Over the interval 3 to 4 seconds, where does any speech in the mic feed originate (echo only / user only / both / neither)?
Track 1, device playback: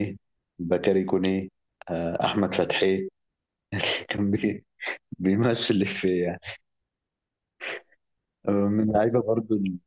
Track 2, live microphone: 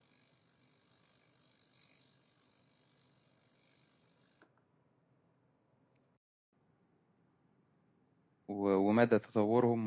neither